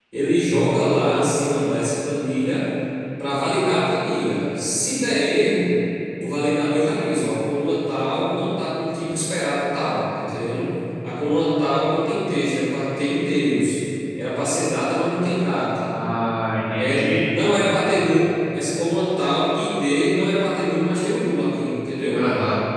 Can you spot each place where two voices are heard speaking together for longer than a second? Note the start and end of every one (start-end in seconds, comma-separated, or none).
none